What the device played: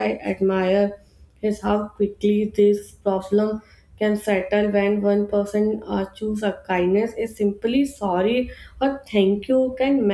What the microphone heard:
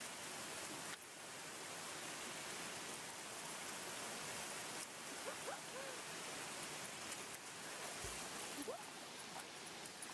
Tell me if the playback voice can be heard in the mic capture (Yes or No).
No